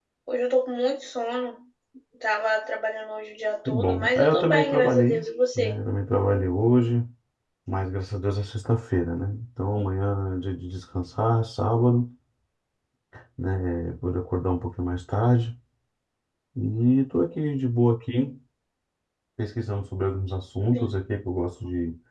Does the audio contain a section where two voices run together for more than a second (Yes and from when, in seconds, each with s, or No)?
Yes, from 3.6 s